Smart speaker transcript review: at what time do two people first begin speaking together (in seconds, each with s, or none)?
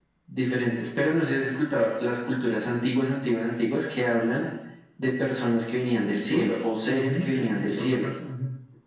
6.3 s